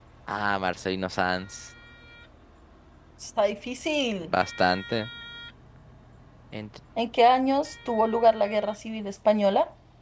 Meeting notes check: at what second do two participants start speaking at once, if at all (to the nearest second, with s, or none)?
none